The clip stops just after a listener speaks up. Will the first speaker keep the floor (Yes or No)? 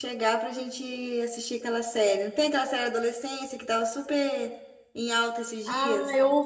No